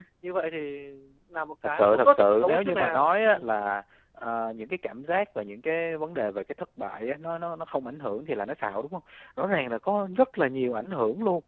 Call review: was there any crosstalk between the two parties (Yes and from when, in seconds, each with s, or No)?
Yes, from 1.6 s